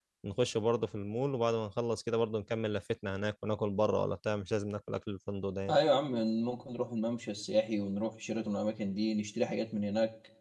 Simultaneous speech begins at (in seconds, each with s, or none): none